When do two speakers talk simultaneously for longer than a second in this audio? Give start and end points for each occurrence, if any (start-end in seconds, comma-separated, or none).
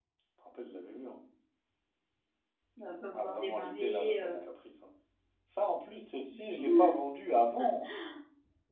3.1-4.4